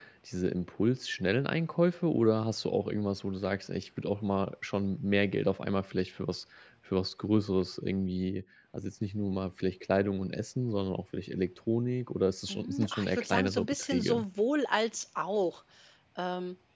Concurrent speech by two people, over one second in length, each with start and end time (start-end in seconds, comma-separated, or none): 12.5-14.2